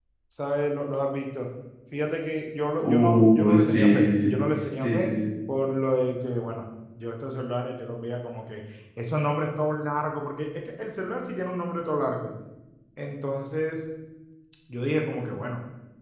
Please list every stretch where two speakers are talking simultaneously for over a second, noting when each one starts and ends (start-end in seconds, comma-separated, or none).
2.8-4.3